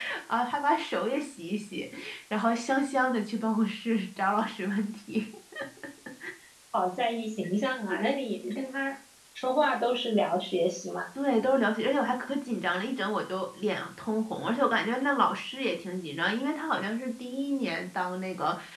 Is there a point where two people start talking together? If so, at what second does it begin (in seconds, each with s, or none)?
none